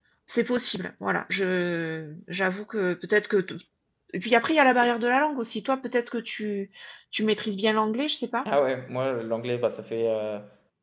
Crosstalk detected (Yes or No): No